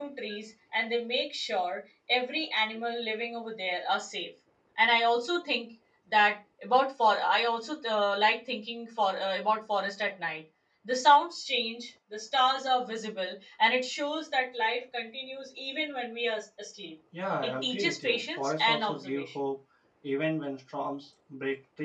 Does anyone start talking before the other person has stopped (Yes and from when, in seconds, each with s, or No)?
Yes, from 17.4 s